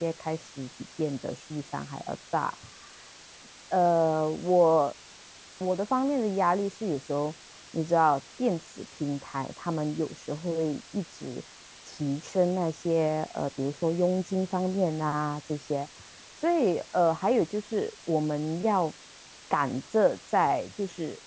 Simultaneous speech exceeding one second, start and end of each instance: none

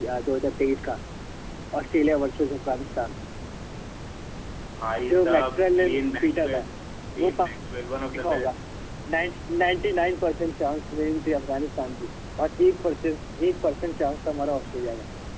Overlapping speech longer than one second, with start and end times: 5.1-6.6

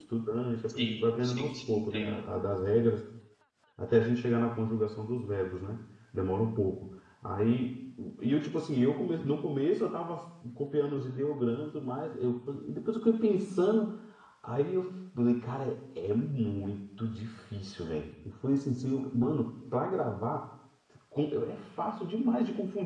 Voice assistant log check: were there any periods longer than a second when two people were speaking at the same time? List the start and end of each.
0.7-2.2

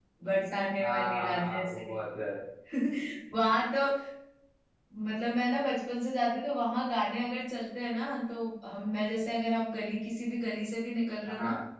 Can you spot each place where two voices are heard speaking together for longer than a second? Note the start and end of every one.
0.8-2.0

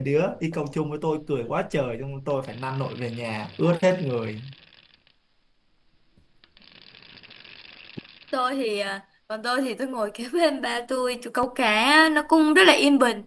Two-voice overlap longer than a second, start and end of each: none

